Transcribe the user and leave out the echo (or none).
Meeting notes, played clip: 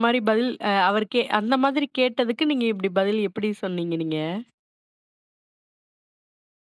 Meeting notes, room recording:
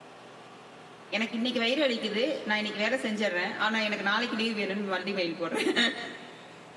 "எனக்கு இன்னக்கி வயிறு வலிக்கிது. நான் இன்னக்கி வேல செஞ்சிர்றேன். ஆனா எனக்கு நாளைக்கி லீவ் வேணுன்னு." மறுபடியும் மெயில் போட்றேன்.